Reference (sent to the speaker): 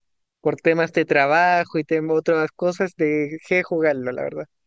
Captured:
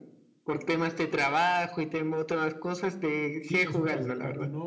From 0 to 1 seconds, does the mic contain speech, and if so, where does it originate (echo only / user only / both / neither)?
echo only